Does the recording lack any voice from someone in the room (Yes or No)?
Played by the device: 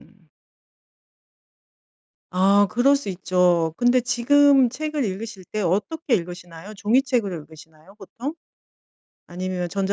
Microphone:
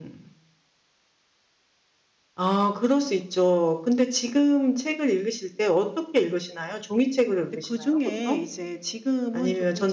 No